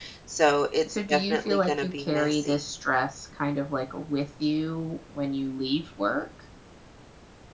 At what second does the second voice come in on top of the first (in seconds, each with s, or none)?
1.1 s